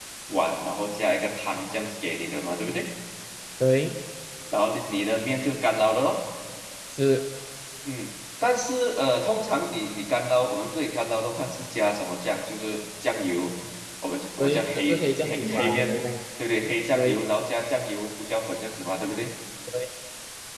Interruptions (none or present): present